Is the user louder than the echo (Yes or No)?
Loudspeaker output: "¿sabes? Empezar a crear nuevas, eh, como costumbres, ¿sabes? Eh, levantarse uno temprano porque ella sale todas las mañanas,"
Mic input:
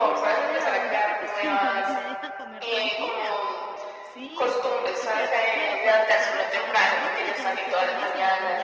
No